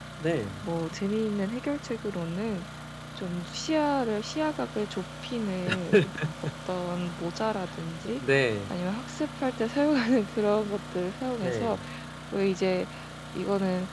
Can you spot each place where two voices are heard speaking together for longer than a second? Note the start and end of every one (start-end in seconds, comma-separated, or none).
none